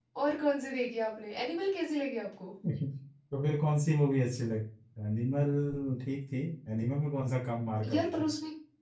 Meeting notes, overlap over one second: none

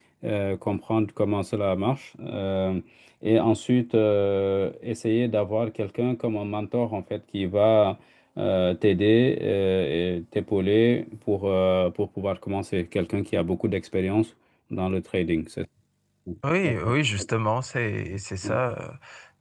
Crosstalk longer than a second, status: none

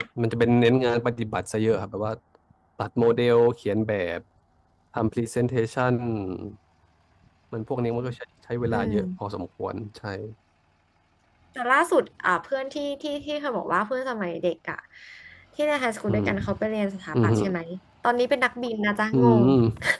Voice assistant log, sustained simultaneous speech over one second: none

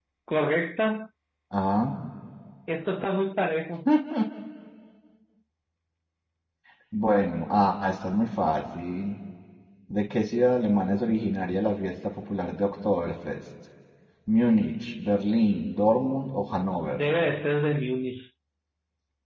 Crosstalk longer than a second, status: none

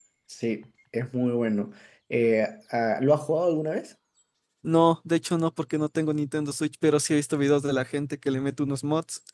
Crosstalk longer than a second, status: none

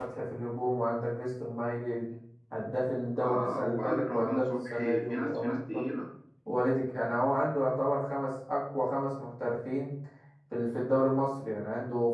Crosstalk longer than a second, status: present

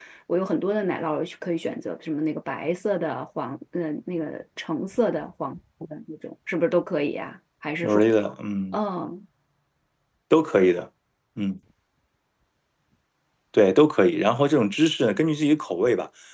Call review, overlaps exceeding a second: none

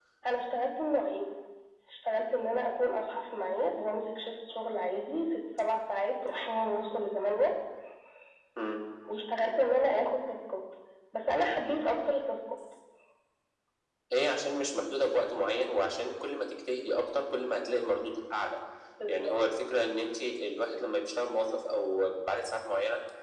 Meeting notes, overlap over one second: none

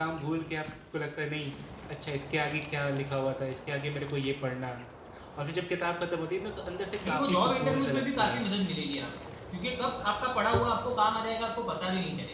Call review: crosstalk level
present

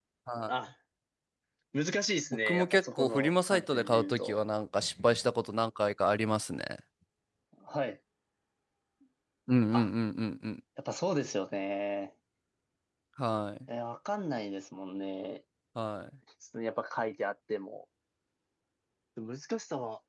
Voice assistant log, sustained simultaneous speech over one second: present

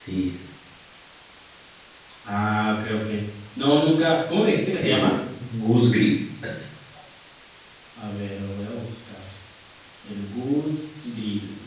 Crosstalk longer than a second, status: none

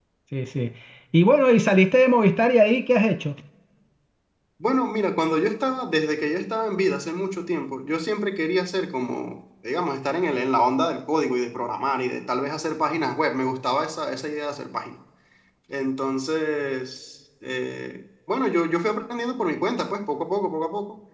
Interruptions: none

